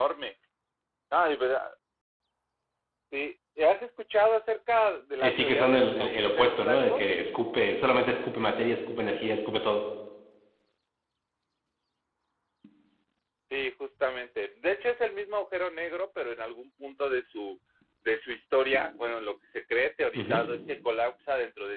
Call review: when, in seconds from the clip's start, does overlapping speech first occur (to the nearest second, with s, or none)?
5 s